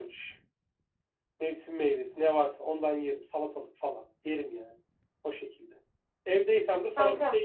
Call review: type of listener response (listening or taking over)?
taking over